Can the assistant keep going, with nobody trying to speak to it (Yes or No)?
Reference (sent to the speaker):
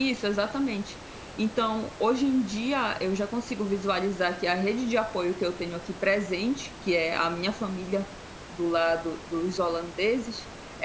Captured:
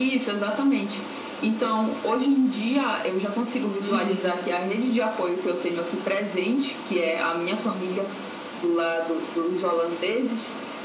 No